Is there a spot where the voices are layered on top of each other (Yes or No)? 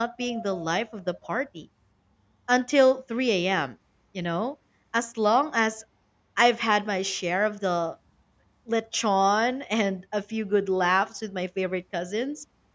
No